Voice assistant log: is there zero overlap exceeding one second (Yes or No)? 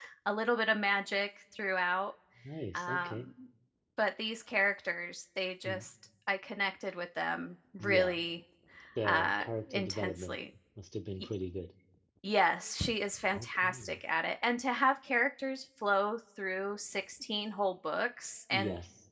No